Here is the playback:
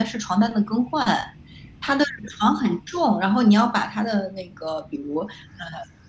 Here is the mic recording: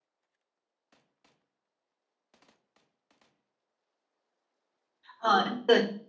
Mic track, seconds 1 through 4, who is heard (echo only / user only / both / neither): neither